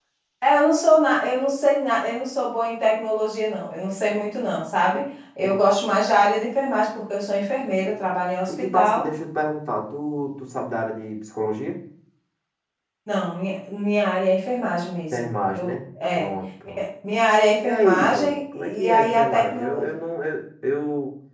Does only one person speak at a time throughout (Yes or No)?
No